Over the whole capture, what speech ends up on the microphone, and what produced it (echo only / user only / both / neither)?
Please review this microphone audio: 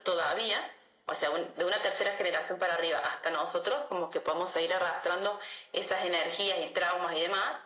echo only